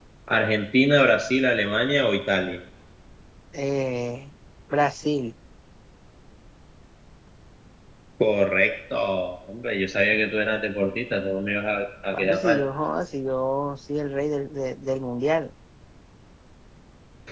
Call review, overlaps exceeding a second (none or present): none